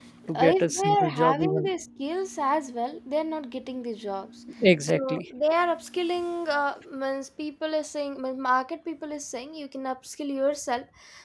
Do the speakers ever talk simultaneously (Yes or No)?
Yes